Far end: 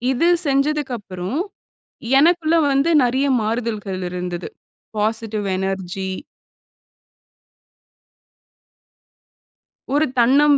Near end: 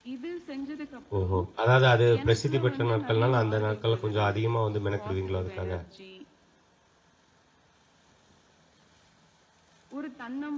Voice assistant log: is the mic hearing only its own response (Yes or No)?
No